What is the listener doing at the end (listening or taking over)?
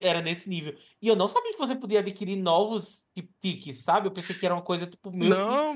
taking over